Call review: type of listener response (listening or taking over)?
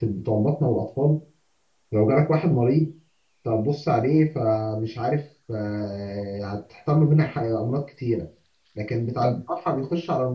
listening